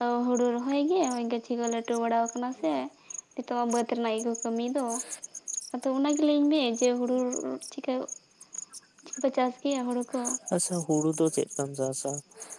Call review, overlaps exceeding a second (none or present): none